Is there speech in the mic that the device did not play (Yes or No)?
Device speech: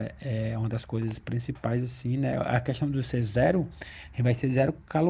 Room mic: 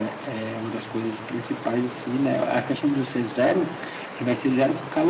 No